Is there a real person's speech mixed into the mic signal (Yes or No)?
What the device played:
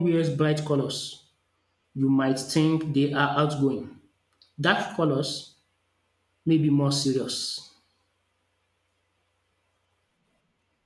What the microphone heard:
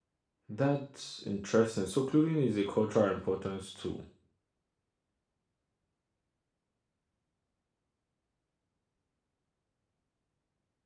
Yes